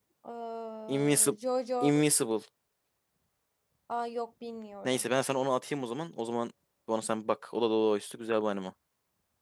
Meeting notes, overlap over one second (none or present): none